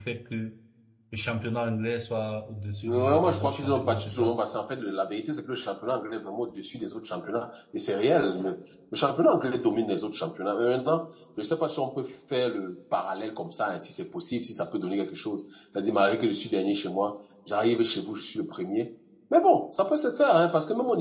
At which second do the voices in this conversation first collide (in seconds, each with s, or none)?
2.8 s